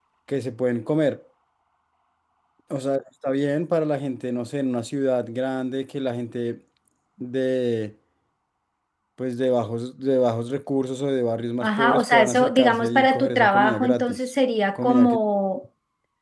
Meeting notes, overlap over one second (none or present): present